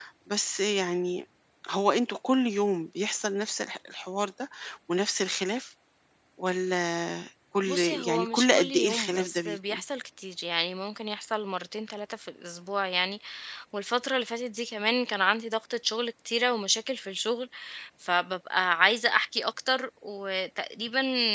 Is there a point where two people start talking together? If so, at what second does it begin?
7.7 s

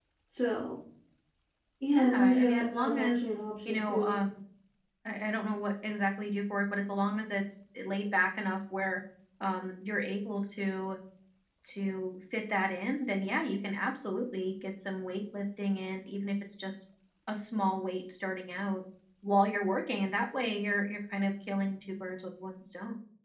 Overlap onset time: 1.9 s

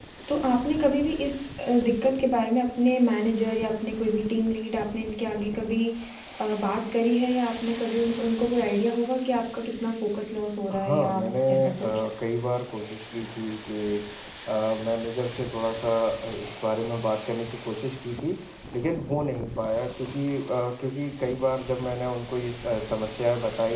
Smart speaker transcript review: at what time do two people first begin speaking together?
10.7 s

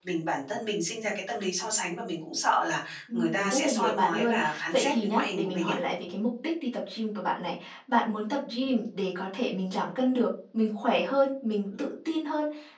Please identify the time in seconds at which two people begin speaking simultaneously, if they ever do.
3.1 s

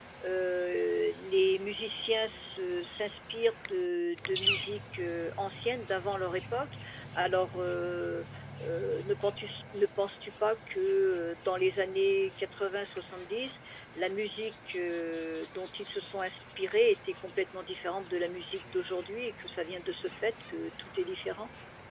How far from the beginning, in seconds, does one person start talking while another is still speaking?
none

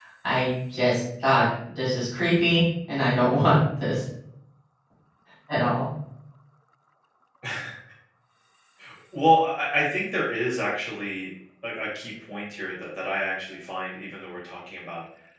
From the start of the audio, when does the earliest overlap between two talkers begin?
none

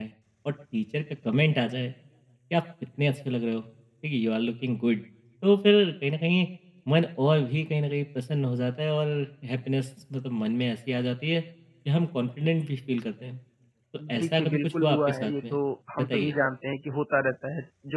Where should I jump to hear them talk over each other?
14.1 s

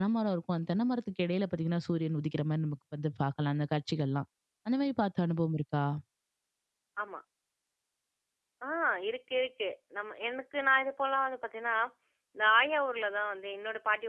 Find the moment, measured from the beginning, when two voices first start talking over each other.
none

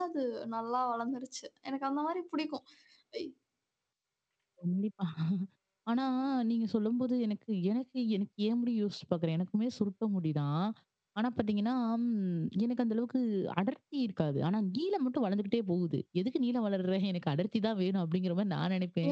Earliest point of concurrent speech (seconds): none

